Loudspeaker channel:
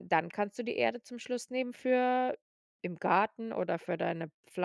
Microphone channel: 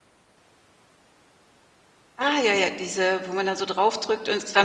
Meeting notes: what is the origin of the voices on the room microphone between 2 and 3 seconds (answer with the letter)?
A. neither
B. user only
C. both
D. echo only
B